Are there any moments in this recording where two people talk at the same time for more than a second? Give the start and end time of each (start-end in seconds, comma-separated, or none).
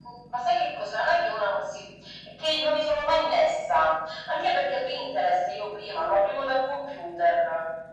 none